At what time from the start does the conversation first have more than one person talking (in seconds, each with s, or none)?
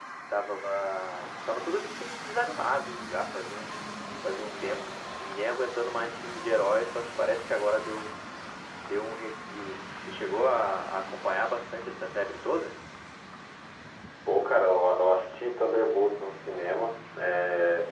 none